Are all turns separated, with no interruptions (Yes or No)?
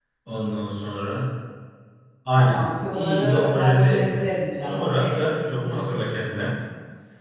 No